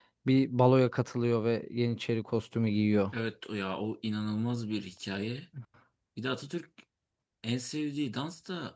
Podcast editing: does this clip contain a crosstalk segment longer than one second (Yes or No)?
No